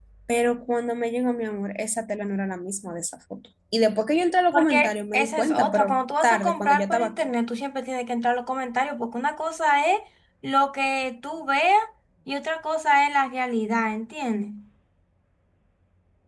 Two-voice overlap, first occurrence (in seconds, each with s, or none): 4.5 s